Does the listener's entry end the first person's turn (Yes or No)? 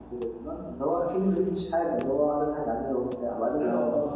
No